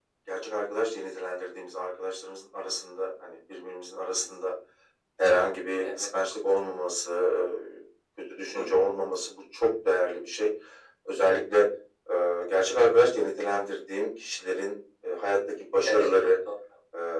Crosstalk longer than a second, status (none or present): none